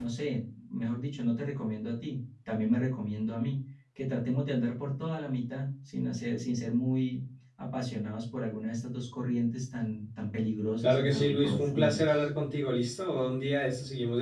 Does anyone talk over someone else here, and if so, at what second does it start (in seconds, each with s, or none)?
10.8 s